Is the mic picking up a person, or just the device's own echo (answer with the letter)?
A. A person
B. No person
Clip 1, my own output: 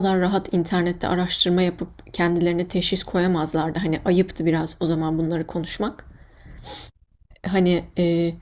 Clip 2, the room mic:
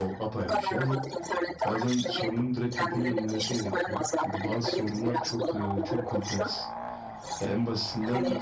A